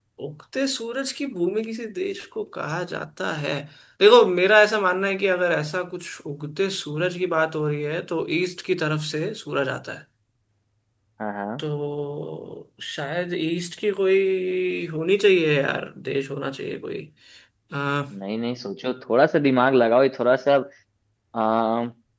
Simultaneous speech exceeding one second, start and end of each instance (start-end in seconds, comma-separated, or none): none